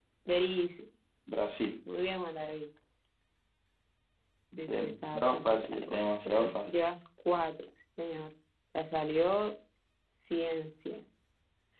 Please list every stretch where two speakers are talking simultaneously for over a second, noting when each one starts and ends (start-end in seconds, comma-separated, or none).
4.7-6.7